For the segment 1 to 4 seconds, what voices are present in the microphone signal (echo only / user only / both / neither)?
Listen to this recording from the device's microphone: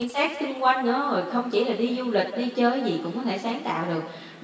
user only